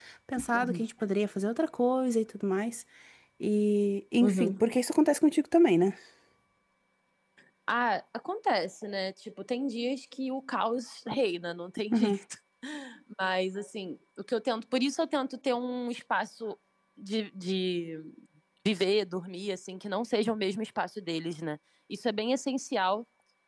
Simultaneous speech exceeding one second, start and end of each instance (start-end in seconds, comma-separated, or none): none